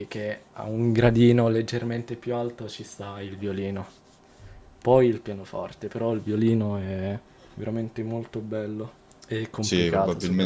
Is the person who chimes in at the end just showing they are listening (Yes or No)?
No